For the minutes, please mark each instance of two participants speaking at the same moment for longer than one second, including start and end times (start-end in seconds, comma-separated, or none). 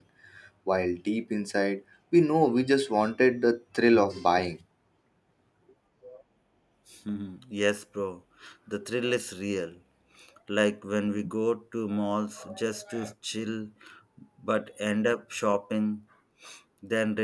none